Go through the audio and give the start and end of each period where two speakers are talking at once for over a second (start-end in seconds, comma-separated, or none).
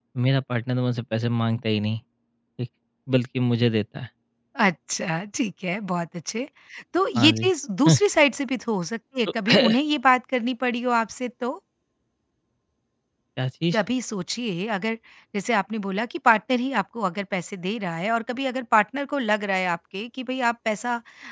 none